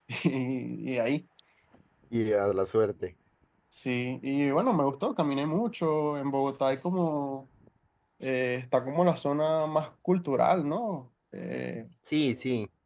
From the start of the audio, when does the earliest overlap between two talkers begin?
none

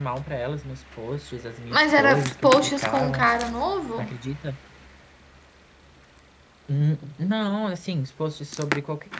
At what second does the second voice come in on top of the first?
1.7 s

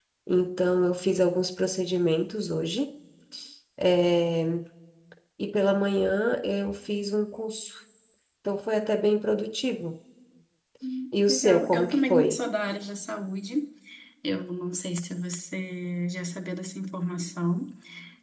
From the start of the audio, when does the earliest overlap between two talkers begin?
11.1 s

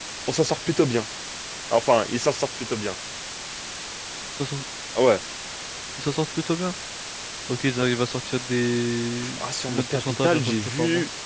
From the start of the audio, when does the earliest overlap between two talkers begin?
9.2 s

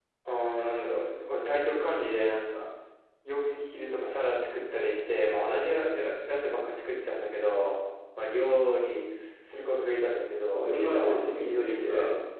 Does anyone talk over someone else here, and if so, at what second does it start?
10.5 s

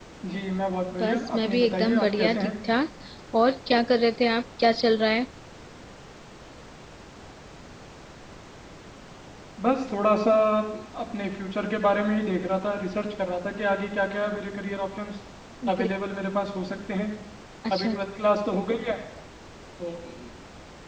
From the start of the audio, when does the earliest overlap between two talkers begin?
1.0 s

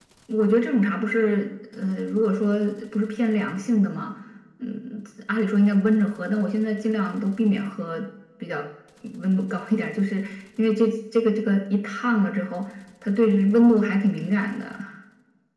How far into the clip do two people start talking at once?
none

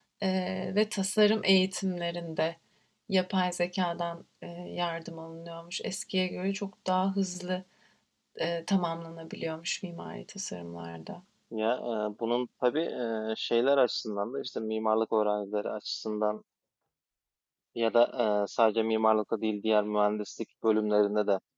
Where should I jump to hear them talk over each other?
none

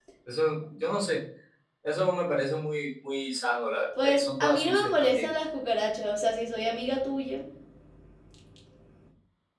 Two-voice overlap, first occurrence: 4.0 s

